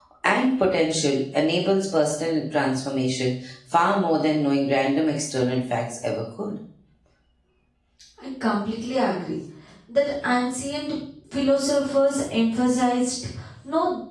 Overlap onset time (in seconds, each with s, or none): none